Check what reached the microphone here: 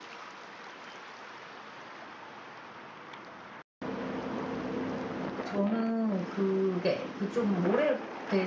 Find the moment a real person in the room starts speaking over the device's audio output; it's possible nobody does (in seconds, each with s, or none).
5.4 s